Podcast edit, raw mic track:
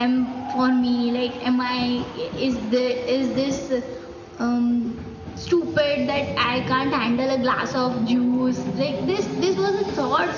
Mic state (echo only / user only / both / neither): user only